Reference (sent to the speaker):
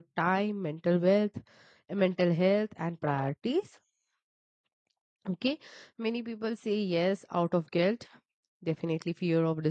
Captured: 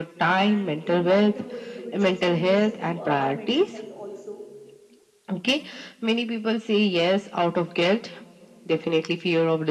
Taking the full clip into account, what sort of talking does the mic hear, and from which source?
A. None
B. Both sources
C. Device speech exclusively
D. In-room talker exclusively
B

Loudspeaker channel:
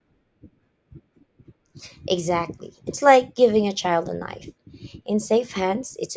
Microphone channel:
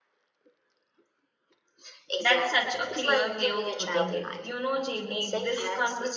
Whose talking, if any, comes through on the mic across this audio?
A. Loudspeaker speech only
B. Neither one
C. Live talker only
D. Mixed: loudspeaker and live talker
D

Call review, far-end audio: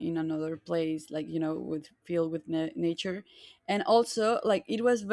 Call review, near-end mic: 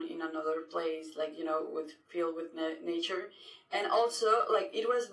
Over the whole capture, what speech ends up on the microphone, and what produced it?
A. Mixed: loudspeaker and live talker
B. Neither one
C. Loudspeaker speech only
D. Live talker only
C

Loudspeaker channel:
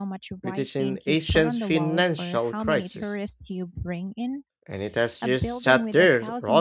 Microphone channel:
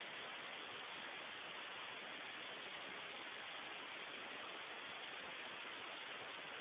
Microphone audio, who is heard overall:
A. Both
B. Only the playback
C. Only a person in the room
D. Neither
D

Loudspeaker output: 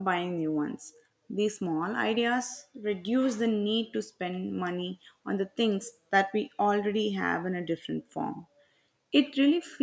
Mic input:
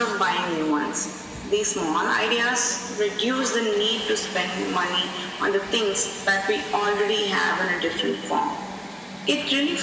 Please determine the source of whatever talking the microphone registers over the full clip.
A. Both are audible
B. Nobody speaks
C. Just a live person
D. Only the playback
D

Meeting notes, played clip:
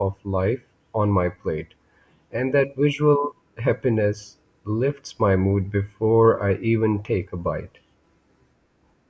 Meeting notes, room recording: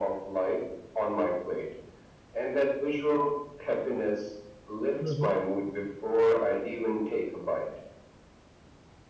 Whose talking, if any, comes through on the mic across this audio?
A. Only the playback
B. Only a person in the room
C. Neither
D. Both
D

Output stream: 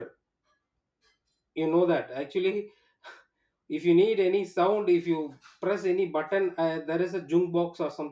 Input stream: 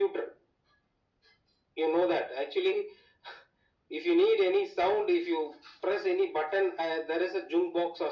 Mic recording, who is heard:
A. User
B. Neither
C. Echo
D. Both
C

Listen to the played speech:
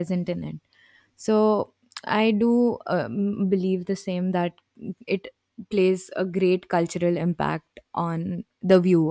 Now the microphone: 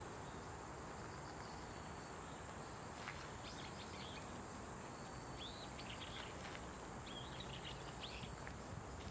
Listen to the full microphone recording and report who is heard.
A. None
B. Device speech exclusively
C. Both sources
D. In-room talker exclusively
A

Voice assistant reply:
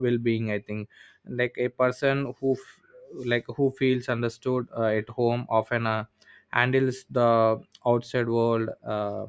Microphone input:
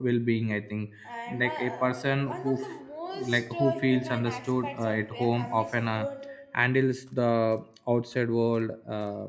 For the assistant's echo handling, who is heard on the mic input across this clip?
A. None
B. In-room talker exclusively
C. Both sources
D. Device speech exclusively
C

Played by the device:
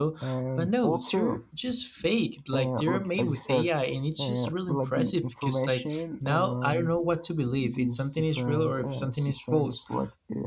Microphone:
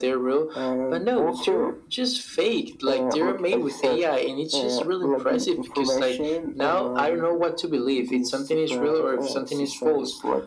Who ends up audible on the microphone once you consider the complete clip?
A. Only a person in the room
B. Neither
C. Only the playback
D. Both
C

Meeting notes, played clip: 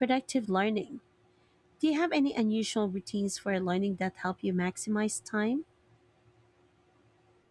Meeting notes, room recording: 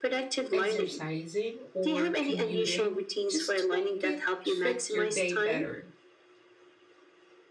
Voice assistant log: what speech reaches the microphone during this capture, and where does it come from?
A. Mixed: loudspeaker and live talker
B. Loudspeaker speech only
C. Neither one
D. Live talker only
A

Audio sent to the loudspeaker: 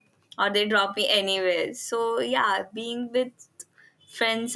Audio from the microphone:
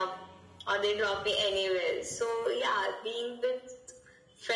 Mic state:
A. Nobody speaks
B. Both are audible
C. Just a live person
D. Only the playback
D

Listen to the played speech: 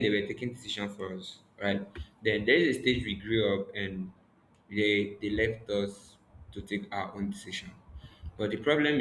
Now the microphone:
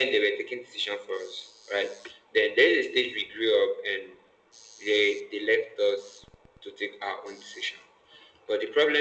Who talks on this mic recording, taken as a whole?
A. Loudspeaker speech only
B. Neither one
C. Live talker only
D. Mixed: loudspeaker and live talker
A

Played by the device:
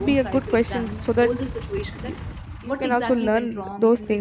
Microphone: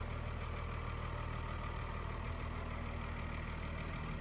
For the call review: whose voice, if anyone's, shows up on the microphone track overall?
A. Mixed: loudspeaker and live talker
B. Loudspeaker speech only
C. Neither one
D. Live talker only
C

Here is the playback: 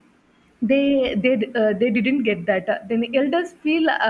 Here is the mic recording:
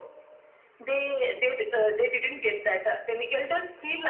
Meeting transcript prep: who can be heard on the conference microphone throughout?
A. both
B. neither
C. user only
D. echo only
D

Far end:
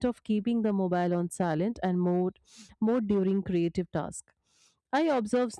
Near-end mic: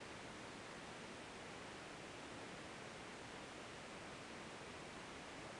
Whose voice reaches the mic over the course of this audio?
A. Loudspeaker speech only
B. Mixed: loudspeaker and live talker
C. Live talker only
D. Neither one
D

